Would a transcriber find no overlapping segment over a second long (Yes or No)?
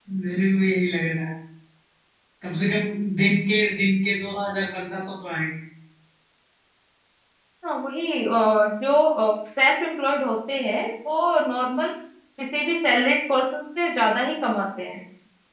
Yes